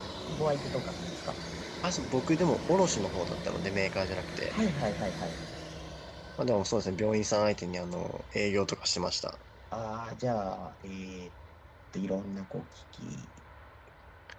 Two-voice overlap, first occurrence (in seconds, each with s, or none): none